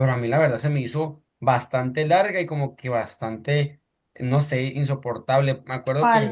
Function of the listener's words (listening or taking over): listening